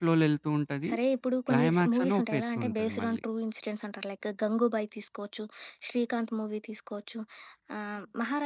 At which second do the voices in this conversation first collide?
1.5 s

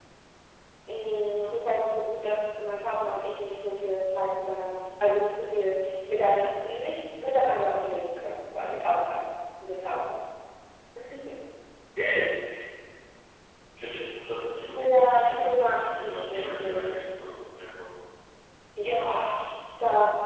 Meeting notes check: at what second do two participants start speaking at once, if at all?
14.8 s

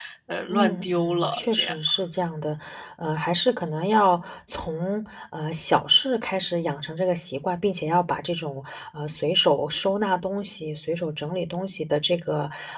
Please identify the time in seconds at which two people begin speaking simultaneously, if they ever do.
0.5 s

